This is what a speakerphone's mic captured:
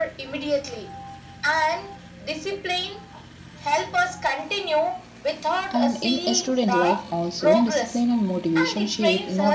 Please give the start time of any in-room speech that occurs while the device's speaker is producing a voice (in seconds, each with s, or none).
5.7 s